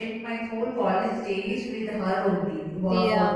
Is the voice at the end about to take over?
No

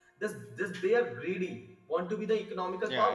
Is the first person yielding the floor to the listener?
Yes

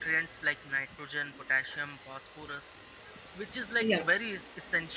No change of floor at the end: Yes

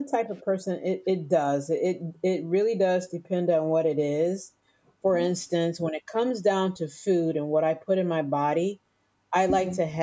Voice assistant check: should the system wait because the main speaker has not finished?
Yes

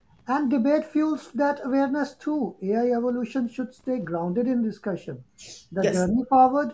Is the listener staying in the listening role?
Yes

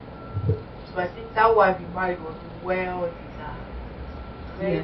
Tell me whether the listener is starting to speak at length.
Yes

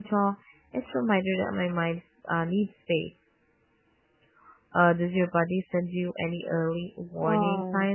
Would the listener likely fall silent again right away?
No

